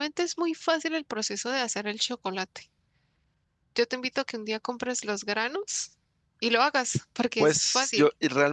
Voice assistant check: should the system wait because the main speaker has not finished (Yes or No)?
No